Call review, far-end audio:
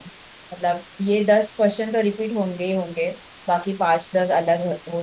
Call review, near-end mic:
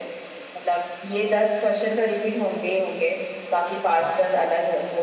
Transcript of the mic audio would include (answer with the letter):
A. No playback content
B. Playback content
B